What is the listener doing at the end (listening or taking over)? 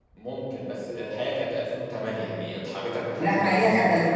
taking over